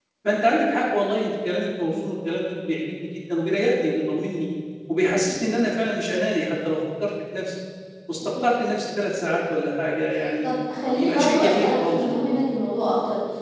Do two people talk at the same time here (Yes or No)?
Yes